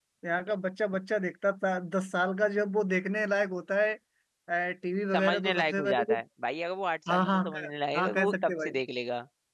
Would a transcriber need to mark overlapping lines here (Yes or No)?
Yes